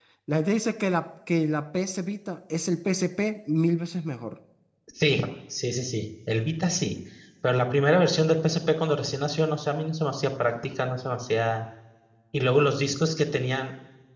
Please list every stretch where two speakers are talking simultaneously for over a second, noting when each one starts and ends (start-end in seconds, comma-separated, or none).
none